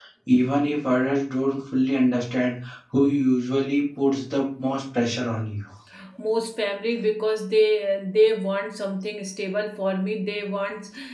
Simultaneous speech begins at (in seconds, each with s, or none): none